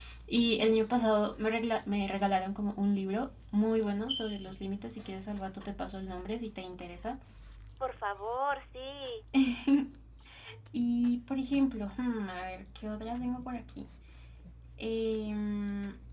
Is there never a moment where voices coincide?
Yes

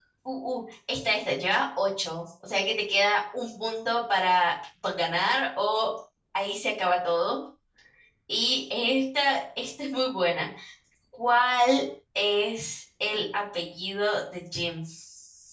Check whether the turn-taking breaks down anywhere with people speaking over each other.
No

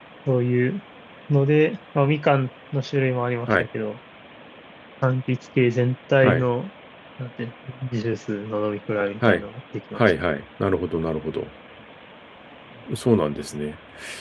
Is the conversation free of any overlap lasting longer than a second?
Yes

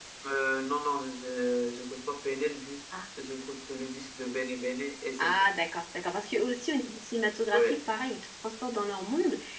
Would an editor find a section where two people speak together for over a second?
No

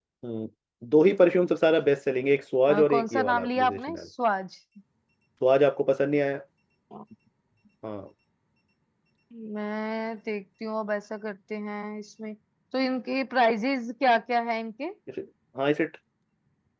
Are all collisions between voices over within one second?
No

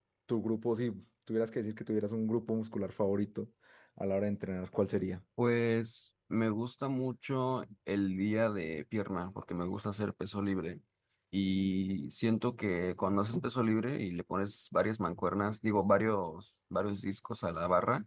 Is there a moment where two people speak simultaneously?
No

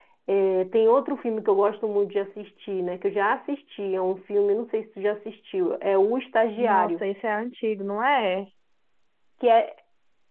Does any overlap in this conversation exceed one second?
No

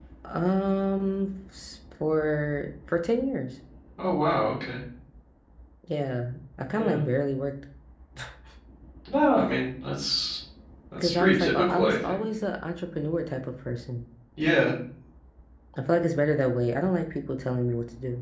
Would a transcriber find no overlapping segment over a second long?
No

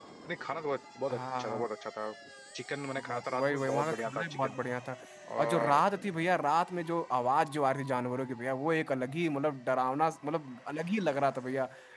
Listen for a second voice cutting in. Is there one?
Yes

